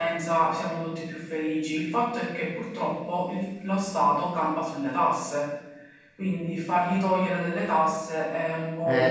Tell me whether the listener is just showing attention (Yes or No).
No